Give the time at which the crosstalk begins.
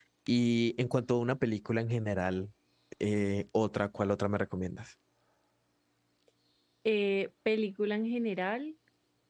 none

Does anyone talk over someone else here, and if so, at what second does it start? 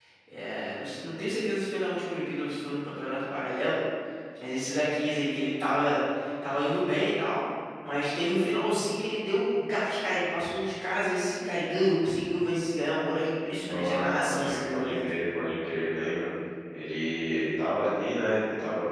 13.5 s

